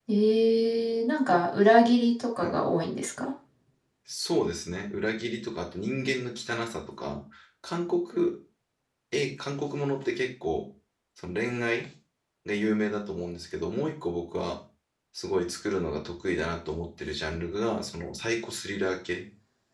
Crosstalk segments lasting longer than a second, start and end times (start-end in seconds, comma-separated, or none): none